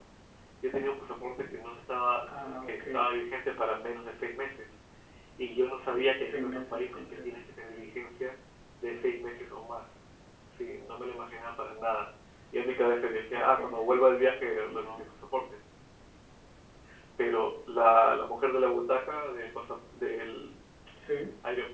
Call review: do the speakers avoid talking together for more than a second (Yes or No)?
No